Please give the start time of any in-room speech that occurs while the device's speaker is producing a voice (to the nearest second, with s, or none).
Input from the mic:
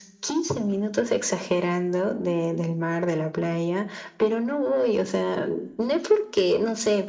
none